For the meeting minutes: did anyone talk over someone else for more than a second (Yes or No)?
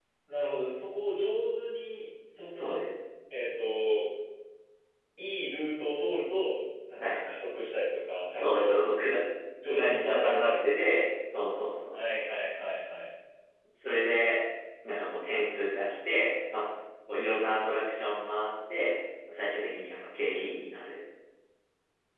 Yes